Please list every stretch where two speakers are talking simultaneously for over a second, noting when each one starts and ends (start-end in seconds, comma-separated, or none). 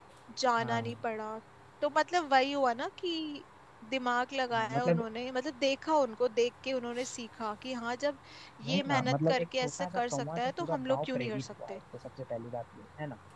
8.7-11.8